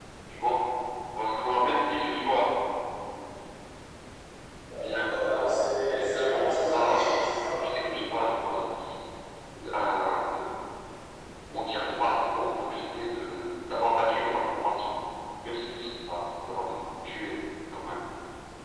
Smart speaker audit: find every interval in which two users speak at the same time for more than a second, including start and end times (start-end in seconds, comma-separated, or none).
4.7-7.3